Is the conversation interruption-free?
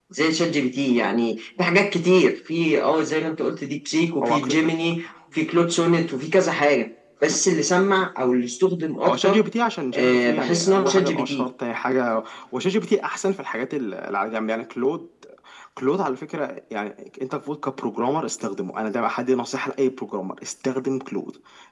No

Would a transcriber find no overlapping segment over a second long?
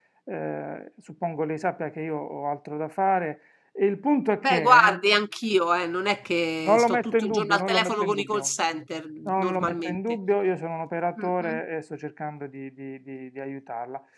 No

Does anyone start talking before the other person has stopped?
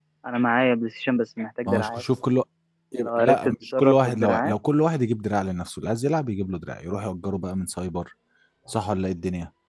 Yes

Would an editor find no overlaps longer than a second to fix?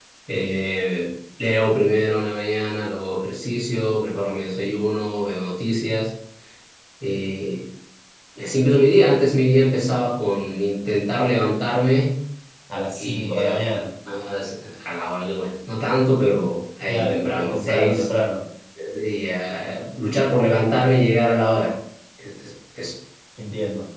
No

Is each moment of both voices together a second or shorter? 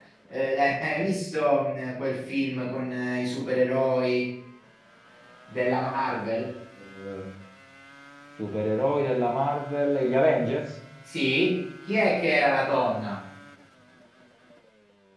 Yes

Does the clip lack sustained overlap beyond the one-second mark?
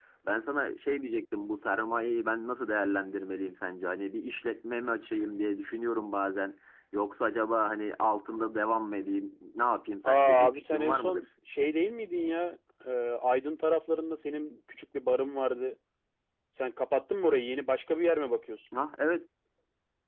No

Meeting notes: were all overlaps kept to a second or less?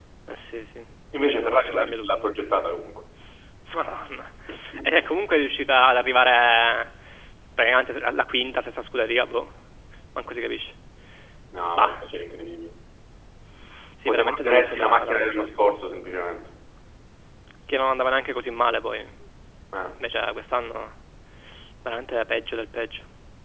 No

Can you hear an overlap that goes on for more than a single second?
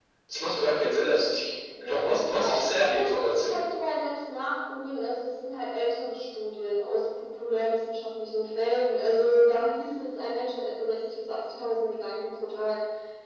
Yes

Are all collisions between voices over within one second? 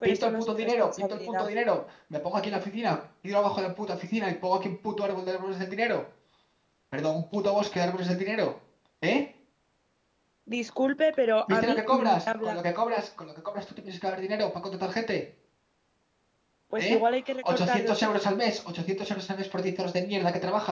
No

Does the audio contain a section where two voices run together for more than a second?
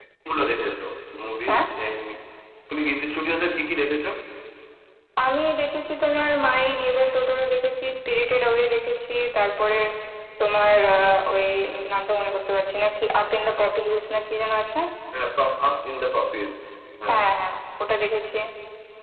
No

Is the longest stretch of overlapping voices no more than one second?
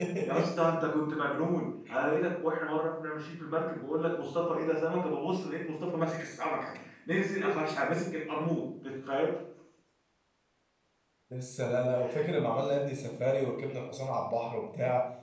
Yes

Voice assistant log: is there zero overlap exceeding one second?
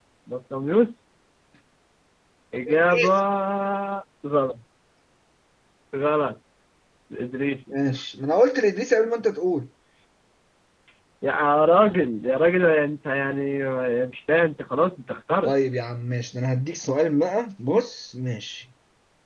Yes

